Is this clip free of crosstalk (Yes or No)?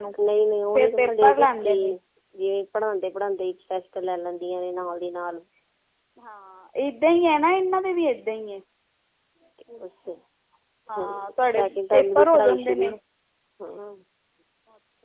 No